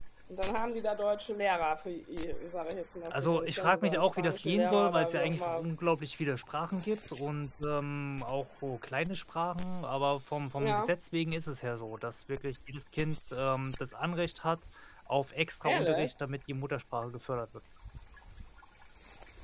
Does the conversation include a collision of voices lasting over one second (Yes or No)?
Yes